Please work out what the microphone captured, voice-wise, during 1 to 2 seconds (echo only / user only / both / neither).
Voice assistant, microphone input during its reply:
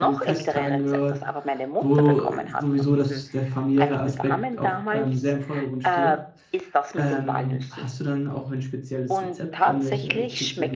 both